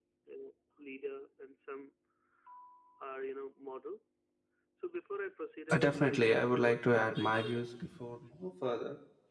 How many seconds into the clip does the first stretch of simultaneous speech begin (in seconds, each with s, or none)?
5.7 s